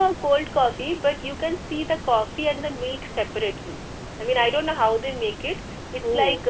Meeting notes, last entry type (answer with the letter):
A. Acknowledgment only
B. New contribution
A